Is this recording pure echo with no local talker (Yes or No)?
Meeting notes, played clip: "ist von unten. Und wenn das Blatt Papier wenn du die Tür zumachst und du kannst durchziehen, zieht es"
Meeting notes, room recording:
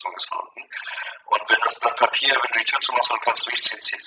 Yes